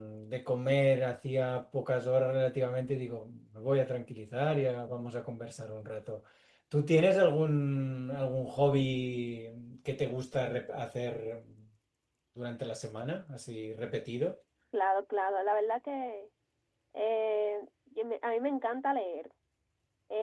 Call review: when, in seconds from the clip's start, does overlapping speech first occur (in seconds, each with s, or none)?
none